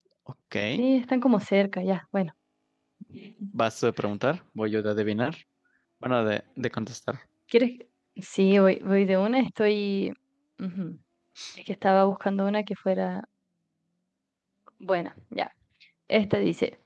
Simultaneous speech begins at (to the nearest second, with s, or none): none